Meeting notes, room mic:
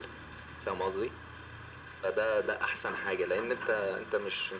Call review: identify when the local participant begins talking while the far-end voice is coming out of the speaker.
none

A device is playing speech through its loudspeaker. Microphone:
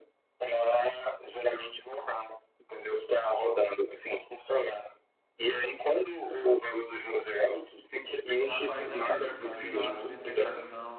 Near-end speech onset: 8.4 s

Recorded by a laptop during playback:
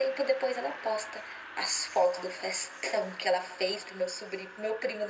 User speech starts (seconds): none

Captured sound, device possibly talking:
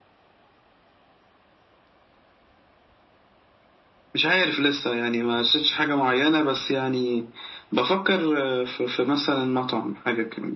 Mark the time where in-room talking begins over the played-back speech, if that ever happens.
none

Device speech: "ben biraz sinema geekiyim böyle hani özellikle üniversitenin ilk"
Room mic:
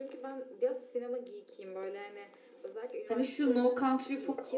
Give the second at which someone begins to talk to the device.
3.0 s

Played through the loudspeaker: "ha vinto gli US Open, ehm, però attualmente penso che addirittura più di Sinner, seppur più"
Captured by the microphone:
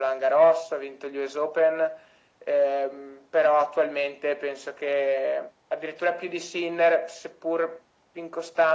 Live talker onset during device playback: none

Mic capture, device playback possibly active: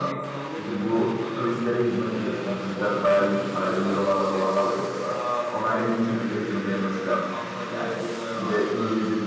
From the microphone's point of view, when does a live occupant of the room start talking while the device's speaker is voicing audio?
none

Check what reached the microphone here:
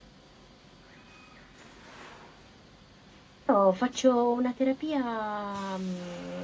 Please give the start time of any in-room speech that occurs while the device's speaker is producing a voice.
3.5 s

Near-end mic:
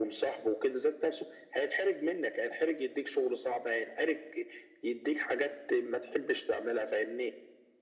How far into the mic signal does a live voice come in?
none

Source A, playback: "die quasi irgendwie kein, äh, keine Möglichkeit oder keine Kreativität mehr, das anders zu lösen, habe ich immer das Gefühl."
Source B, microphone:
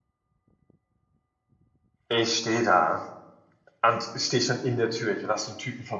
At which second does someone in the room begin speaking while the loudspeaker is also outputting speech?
2.1 s

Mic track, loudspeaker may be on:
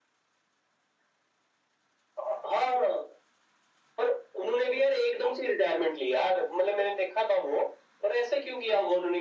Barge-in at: none

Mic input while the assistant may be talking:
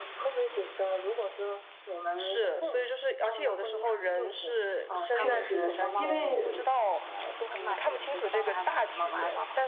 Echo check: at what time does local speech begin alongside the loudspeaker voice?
5.1 s

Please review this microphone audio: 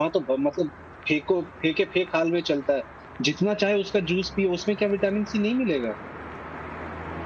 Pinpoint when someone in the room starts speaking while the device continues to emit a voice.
none

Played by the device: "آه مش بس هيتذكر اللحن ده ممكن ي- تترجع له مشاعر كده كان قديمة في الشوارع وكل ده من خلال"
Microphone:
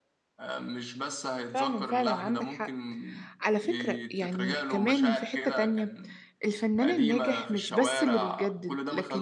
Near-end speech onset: 1.5 s

